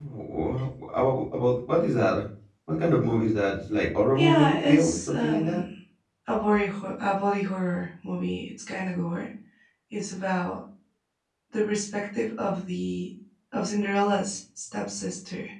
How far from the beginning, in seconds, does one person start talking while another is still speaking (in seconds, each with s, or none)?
4.2 s